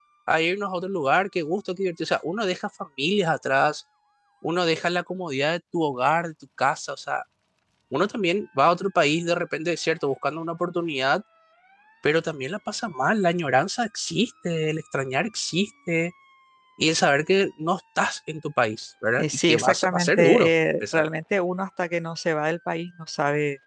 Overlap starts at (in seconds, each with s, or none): 19.2 s